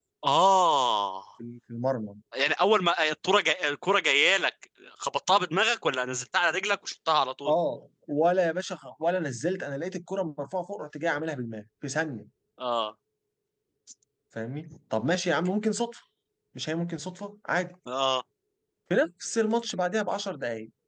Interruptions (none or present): none